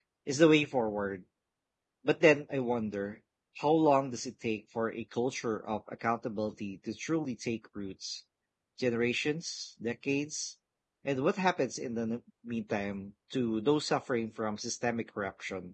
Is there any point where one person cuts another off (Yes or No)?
No